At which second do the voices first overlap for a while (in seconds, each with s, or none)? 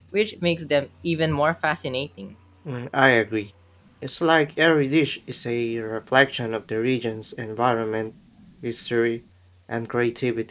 none